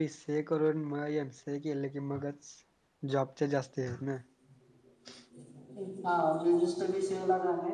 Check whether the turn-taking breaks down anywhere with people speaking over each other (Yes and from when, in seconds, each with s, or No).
No